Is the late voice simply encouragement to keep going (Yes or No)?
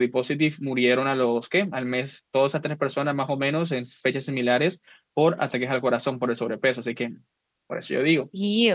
No